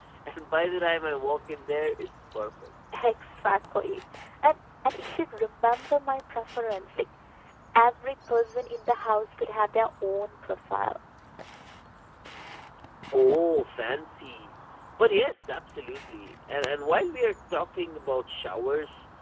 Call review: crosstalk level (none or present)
none